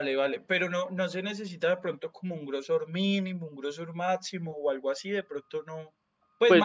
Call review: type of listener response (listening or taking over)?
taking over